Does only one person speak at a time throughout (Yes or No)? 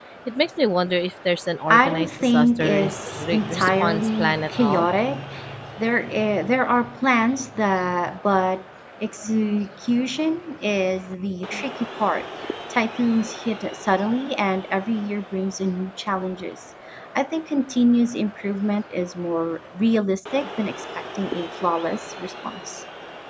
No